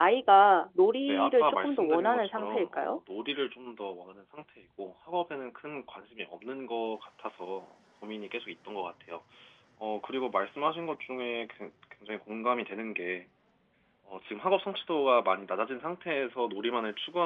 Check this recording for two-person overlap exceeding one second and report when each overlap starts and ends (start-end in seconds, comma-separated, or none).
1.1-3.0